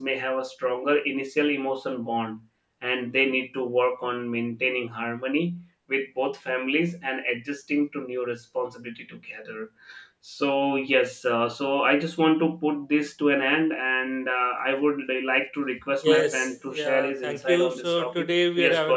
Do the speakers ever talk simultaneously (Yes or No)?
Yes